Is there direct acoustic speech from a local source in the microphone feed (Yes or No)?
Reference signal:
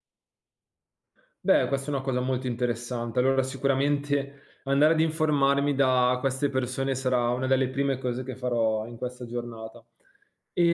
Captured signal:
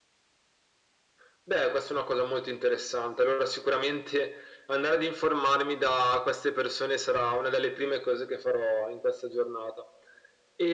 No